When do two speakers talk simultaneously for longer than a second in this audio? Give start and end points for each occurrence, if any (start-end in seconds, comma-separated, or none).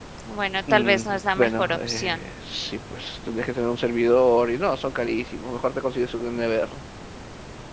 0.7-2.2